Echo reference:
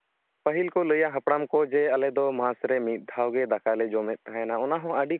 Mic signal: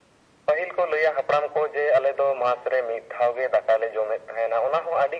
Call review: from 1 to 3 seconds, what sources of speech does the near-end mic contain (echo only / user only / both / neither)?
echo only